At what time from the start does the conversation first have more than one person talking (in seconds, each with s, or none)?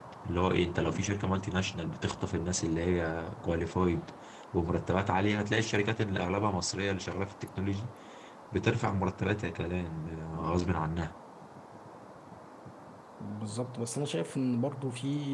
none